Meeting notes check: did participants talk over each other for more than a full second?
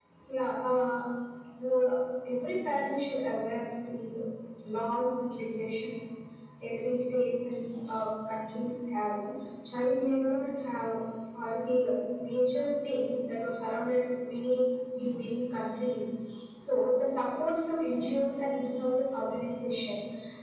No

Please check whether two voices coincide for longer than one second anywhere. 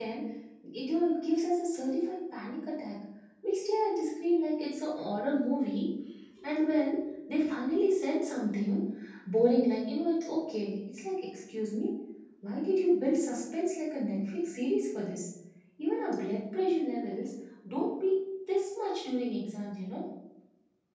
No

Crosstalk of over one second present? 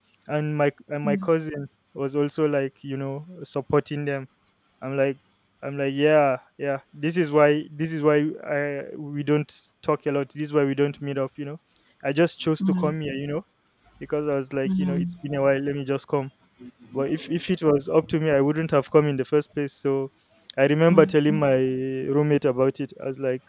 No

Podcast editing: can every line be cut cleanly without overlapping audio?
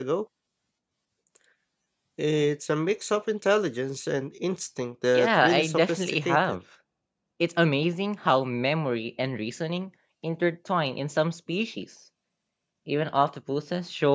No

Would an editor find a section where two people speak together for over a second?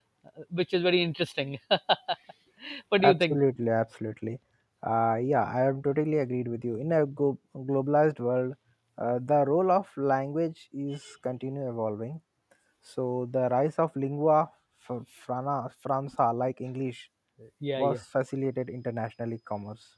No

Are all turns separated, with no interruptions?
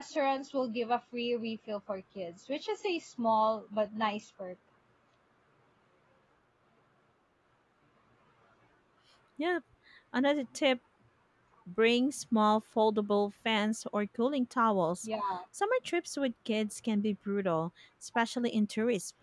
Yes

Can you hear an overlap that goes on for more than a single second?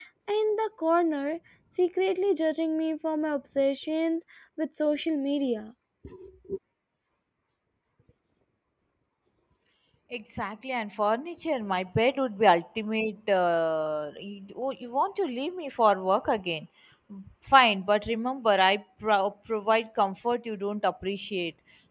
No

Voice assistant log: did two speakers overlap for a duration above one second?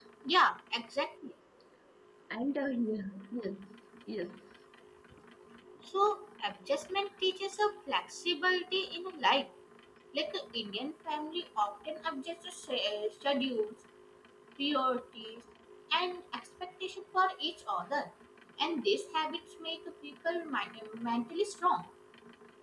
No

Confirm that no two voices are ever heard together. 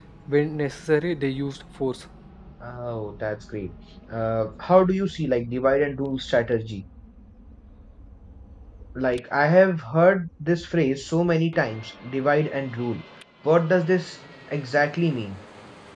Yes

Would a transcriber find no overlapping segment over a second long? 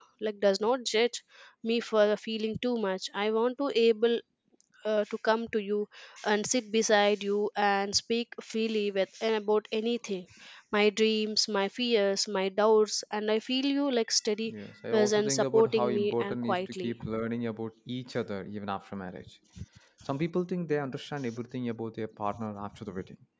No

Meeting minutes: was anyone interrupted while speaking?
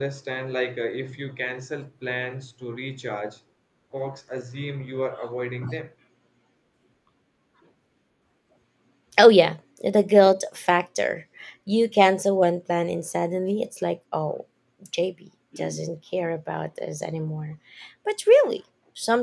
No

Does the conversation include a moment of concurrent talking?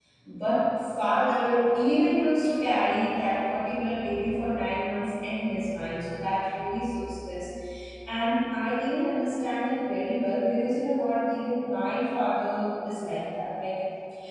No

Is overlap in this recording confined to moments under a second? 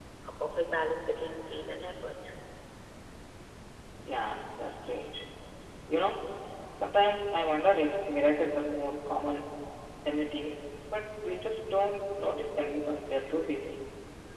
Yes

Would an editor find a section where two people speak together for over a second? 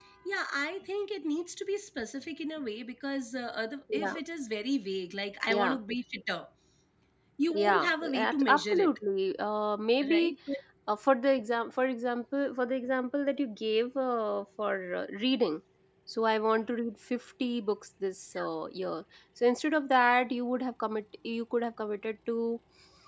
Yes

